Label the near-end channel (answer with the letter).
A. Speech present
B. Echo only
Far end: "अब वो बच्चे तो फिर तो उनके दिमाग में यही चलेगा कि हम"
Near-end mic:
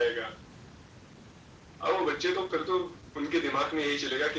B